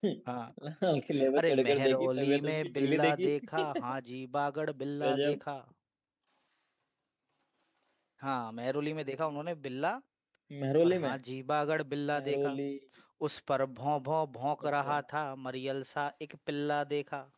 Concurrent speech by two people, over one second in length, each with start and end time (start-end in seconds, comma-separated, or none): 1.4-3.3